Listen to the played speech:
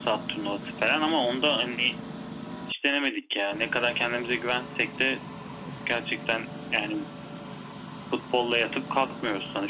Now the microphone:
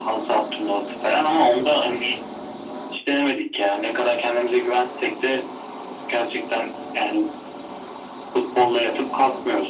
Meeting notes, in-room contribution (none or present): none